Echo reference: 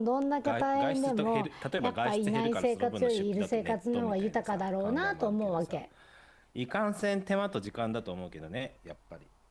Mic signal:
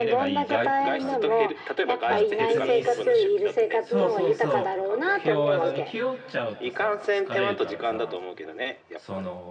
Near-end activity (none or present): present